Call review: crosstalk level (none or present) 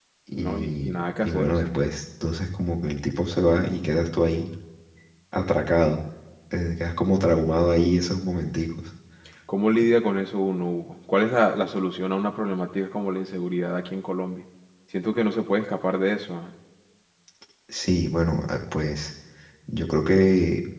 present